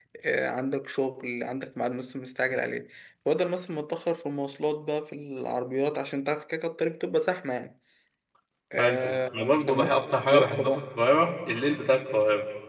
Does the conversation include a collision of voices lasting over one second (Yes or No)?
Yes